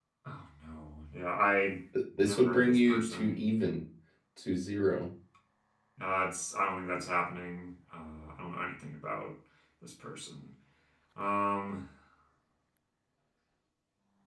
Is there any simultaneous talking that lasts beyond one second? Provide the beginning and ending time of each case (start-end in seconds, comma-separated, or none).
2.2-3.4